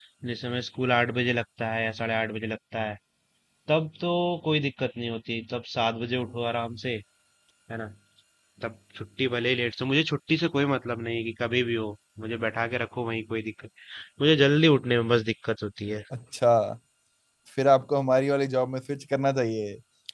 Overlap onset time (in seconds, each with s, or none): none